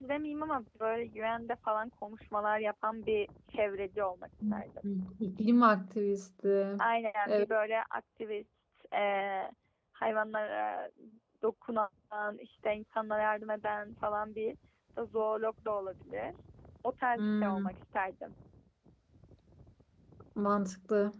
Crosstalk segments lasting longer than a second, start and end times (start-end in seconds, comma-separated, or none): none